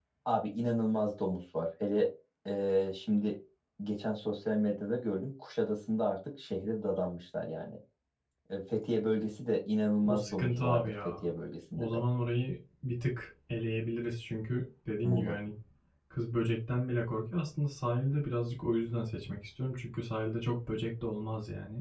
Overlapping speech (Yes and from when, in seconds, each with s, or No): Yes, from 10.0 s